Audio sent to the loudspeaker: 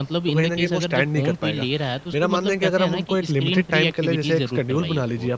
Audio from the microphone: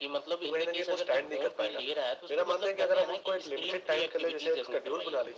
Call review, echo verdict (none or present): present